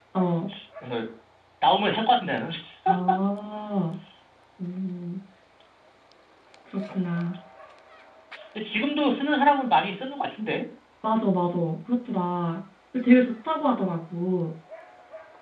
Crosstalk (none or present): none